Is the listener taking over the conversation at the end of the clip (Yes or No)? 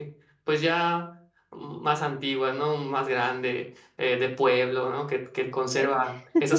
No